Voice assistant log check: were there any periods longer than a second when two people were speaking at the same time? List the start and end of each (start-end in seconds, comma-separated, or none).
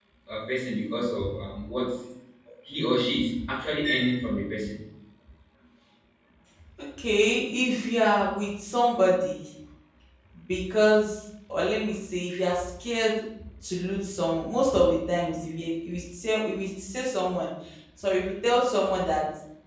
none